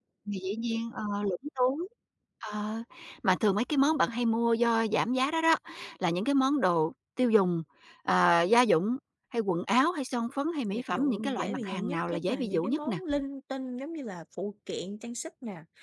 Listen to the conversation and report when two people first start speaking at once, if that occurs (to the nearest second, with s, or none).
11 s